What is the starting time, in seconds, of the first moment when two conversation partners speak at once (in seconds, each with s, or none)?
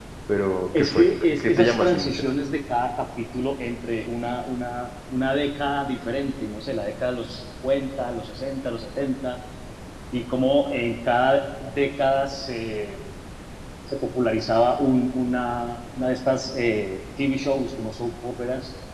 0.8 s